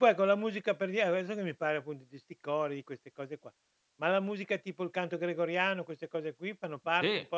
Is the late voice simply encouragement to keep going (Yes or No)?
No